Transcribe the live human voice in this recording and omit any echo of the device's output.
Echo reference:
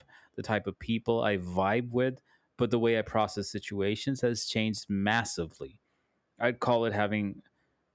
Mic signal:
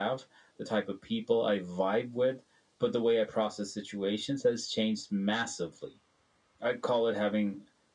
none

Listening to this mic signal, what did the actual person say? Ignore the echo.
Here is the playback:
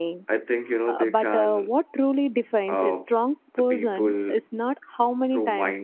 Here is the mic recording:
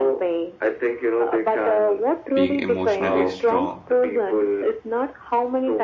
being emotionally strong?

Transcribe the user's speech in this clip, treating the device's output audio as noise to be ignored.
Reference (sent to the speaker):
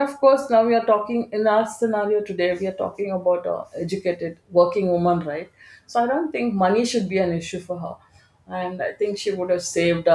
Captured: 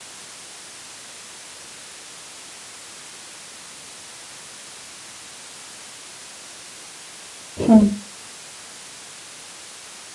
Hmm.

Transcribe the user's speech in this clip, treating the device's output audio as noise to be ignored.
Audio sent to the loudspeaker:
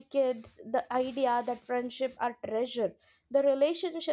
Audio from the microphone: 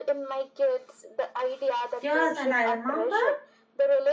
Yes, and I remember

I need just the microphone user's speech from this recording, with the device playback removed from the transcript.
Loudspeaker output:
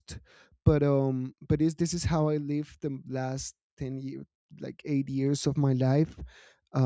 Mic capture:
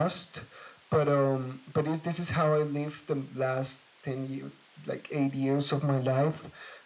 none

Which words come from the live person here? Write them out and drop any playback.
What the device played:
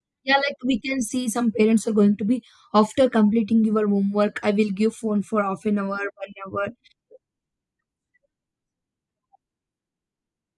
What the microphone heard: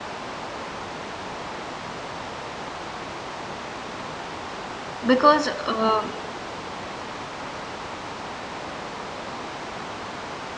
because uh,

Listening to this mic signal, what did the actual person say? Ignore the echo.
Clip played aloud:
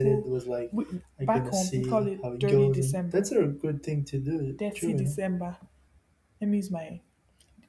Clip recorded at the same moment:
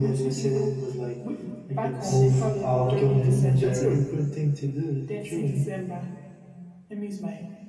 move out of Ni- Nigeria?

